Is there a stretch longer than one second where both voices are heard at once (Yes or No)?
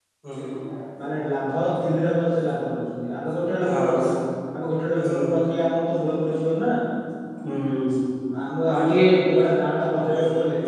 No